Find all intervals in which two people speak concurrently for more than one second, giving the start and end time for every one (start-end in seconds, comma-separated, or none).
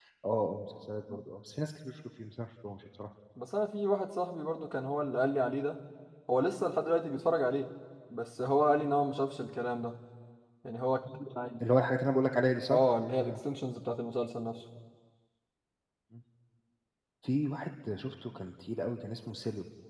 none